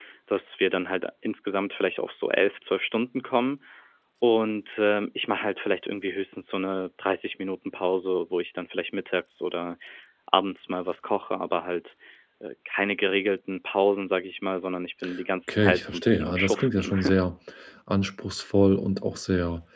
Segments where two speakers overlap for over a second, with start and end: 15.5-16.9

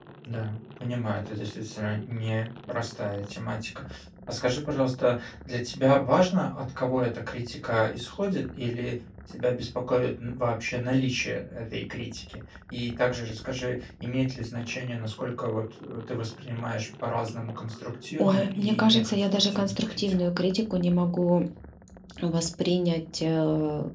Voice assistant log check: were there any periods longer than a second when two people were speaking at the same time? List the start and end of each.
18.2-20.0

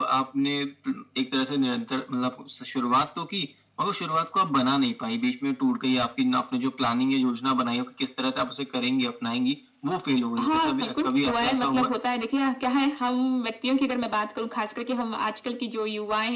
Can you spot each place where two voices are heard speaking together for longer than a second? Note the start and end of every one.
10.4-11.9

